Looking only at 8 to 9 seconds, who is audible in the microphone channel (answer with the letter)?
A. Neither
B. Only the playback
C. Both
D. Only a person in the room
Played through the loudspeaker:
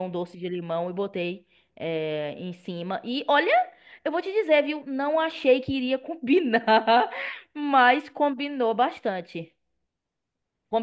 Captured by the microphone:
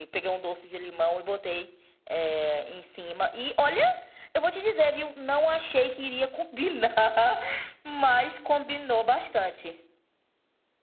B